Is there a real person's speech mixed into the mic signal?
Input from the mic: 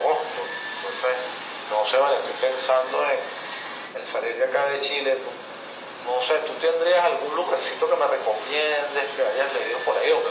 No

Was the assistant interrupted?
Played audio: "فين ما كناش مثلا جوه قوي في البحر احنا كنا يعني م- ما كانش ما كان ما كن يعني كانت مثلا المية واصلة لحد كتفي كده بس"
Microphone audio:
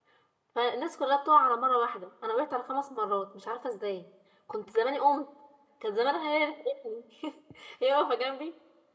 Yes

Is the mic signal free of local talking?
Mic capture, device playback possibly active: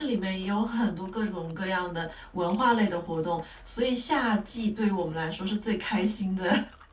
No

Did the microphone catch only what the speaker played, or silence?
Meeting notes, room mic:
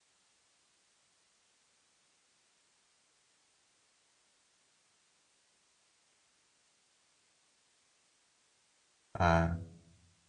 No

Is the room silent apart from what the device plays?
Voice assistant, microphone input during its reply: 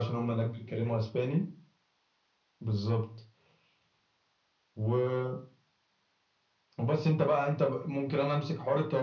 Yes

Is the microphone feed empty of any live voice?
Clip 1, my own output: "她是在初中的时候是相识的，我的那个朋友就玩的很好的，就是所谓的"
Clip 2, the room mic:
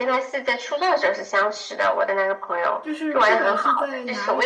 No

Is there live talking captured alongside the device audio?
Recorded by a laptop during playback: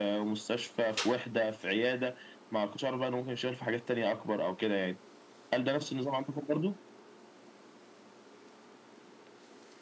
No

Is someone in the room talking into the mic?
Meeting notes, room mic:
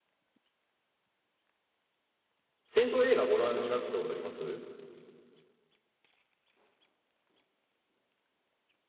Yes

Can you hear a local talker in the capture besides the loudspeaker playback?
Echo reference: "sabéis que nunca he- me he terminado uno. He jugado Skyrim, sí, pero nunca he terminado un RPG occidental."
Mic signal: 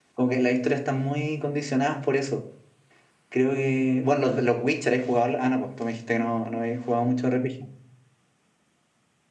Yes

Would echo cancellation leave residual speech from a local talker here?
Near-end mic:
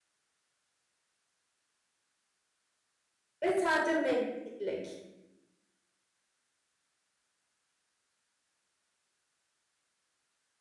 Yes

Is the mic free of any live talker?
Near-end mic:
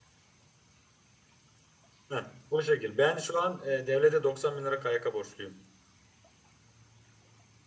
No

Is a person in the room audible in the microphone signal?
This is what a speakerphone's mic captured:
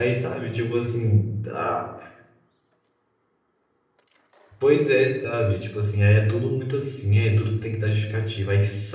Yes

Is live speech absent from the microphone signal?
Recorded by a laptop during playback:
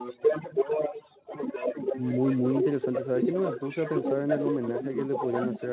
No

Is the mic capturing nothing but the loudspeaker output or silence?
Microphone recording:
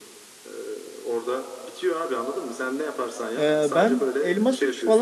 No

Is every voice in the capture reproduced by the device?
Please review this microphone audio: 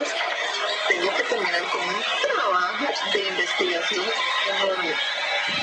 Yes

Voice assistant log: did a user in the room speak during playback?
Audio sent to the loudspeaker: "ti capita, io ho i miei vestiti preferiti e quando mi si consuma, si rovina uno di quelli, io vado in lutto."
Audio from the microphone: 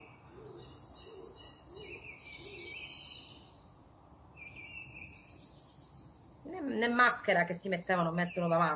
Yes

